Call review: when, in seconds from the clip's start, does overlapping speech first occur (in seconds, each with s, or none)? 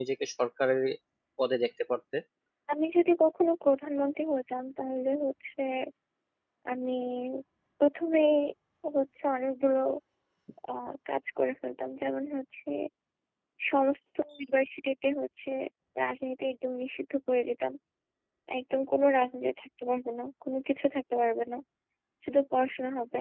none